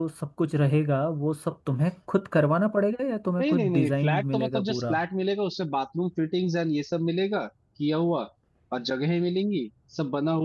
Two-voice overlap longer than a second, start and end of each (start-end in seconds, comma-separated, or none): 3.4-4.9